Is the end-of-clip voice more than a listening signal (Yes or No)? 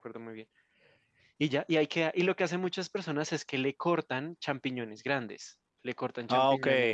No